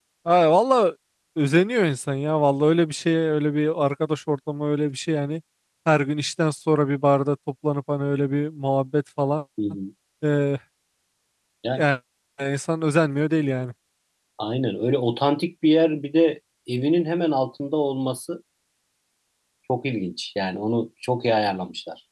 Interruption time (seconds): none

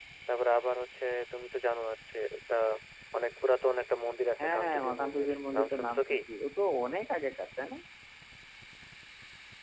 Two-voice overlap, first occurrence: 4.4 s

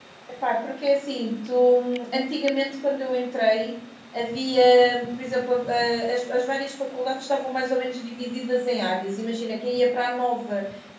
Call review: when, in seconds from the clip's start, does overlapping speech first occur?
none

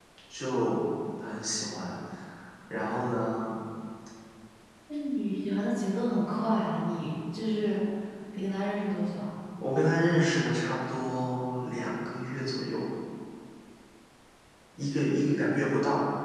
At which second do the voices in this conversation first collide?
none

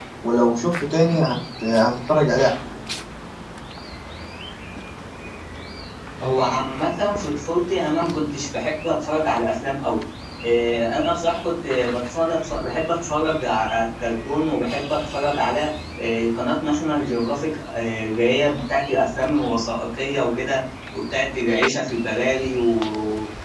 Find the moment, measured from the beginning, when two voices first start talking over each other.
none

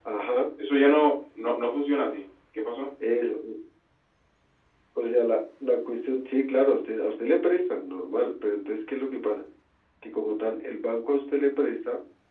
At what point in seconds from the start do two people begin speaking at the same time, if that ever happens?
none

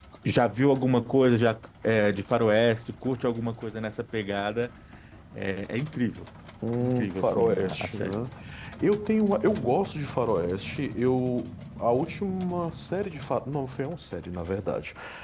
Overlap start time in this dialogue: 6.8 s

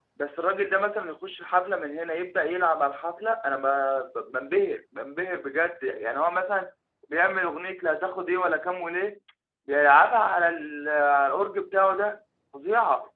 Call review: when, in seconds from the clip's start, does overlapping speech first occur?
none

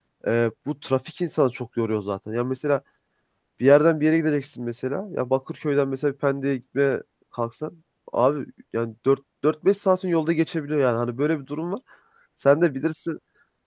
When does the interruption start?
none

